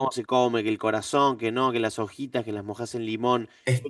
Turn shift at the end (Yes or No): No